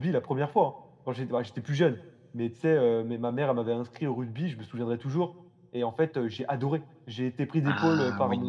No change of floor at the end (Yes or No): Yes